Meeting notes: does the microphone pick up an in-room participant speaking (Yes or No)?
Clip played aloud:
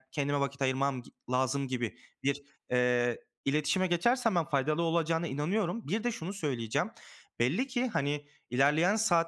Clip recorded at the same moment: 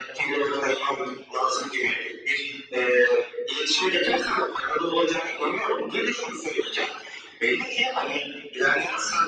No